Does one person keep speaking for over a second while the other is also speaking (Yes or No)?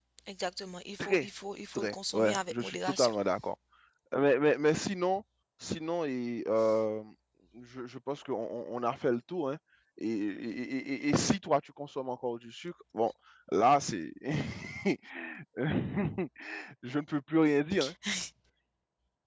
Yes